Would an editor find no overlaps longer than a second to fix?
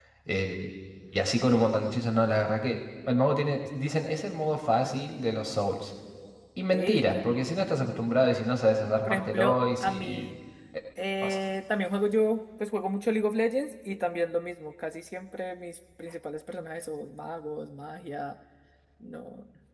No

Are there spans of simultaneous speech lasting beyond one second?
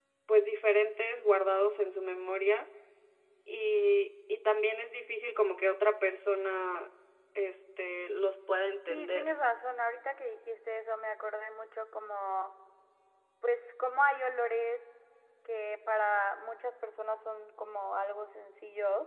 No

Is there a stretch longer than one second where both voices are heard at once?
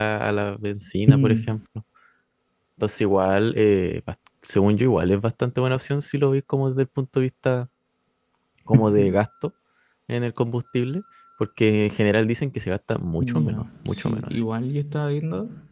Yes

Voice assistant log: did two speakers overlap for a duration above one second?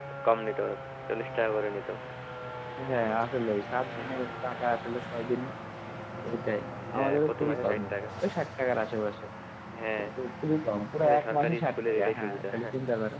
Yes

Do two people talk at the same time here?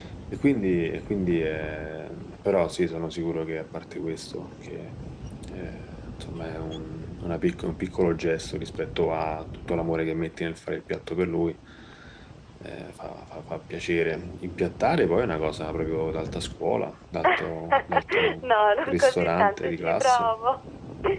Yes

